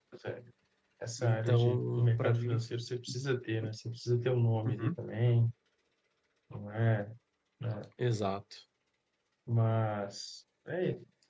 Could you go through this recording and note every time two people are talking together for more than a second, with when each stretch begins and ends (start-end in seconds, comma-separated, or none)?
1.2-2.6